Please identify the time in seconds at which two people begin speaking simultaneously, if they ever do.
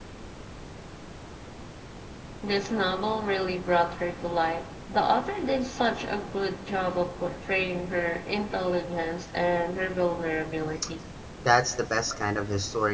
none

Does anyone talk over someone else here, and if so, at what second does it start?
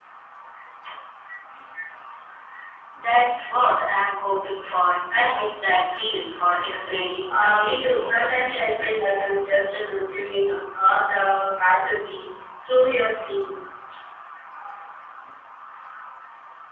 7.3 s

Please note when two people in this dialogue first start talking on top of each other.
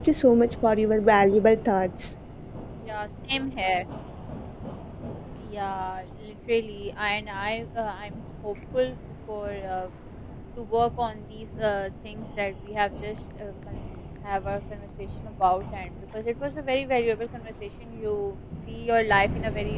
none

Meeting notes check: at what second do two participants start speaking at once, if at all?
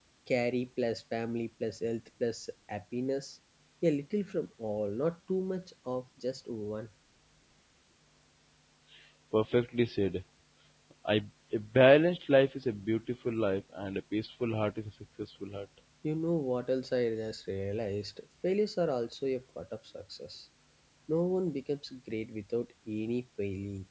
none

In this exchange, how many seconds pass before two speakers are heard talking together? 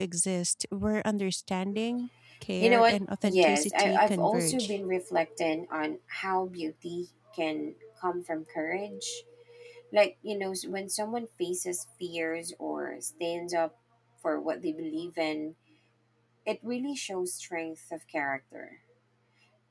2.6 s

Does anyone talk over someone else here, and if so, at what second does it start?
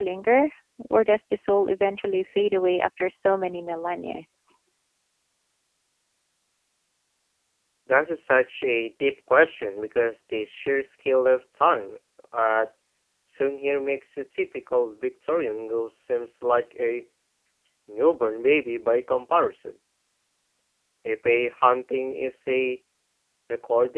none

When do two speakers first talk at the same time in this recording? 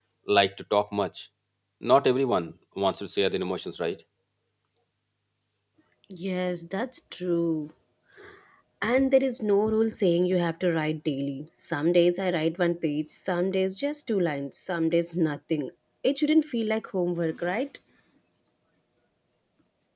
none

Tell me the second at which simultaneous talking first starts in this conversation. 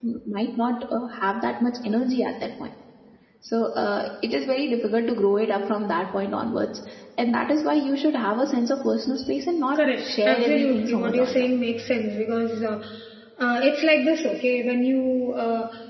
9.8 s

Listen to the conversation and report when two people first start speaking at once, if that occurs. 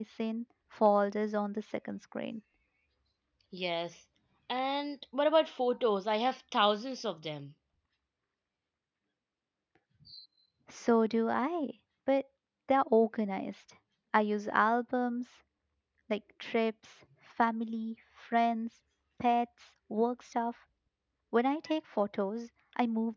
none

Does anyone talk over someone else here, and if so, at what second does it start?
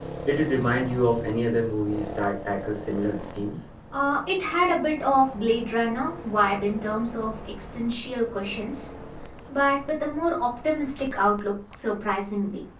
none

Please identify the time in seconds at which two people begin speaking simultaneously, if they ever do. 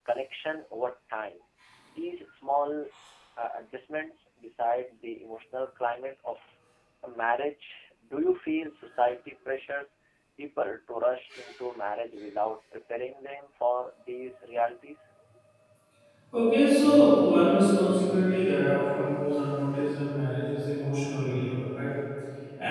none

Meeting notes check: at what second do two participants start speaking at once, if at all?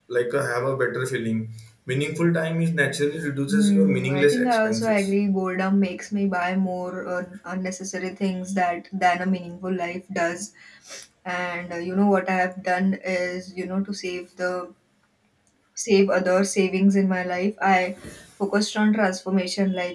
3.5 s

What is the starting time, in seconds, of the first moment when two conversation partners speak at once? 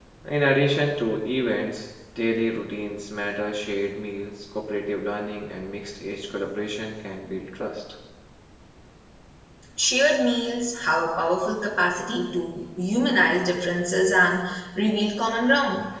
none

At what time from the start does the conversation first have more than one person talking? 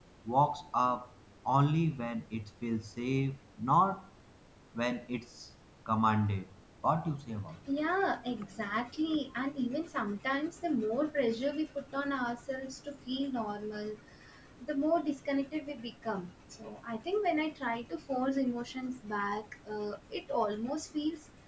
none

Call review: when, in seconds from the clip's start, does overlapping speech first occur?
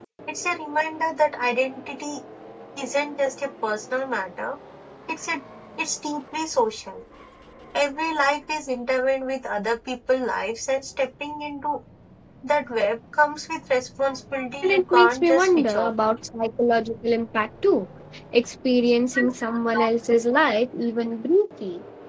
14.6 s

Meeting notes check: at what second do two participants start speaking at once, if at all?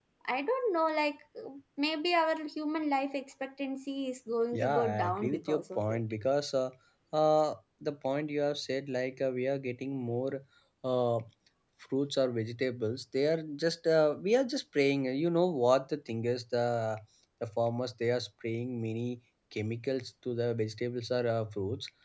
4.5 s

